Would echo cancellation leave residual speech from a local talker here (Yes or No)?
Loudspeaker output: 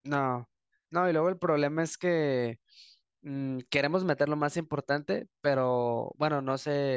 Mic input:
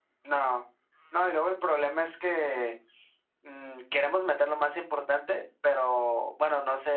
No